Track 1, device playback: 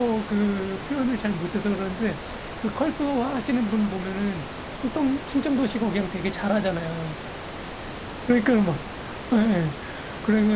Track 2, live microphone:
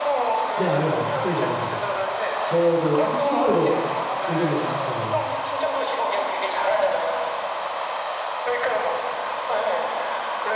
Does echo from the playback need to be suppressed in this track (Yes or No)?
Yes